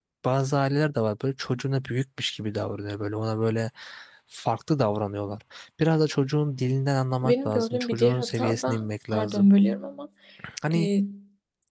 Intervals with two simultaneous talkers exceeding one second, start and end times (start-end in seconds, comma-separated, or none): 7.2-9.5